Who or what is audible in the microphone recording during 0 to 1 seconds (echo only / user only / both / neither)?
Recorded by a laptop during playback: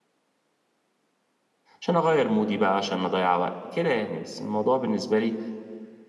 neither